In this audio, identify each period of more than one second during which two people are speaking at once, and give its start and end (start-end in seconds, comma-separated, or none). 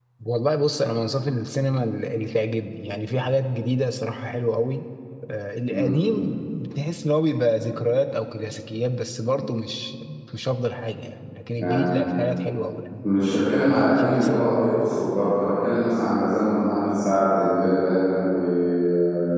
13.7-14.9